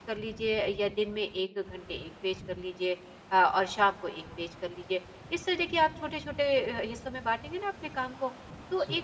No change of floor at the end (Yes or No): Yes